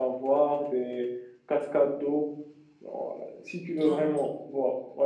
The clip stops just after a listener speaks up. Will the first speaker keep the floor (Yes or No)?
Yes